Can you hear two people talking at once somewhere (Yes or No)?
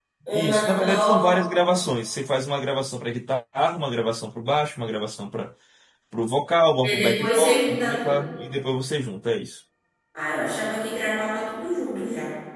Yes